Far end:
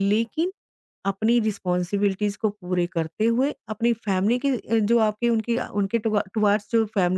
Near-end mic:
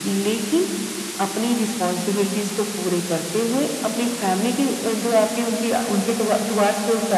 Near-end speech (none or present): none